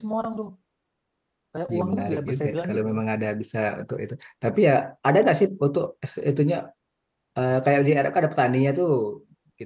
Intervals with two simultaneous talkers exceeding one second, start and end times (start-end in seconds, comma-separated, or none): 1.7-3.0